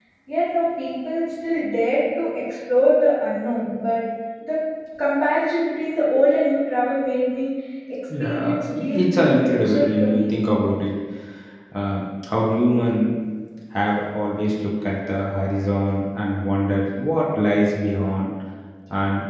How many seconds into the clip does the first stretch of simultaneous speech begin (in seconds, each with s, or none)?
8.1 s